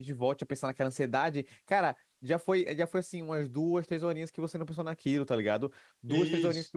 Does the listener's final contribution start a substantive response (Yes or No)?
No